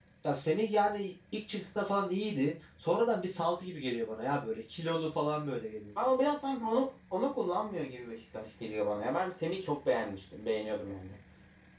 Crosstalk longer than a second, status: none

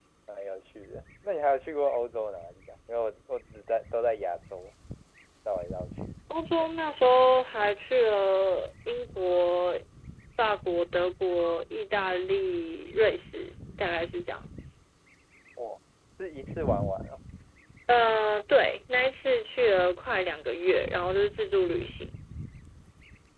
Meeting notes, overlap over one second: none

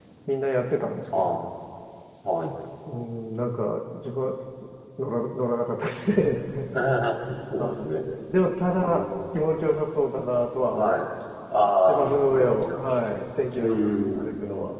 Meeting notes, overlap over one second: present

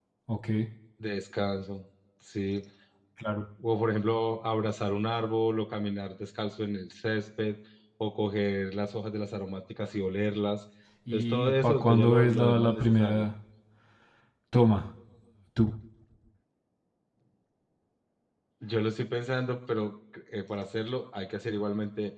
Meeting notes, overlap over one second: present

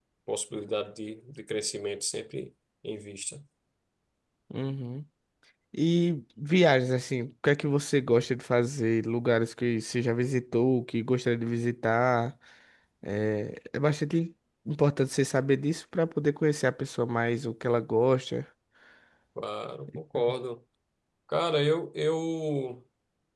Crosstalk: none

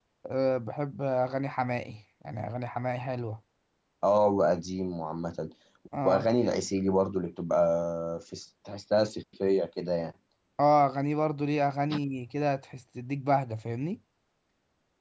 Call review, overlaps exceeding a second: none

